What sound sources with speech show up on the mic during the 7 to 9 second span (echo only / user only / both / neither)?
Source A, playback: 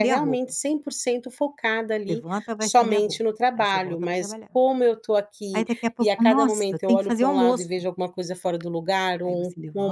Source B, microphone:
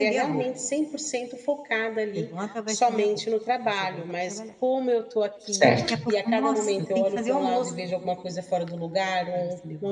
echo only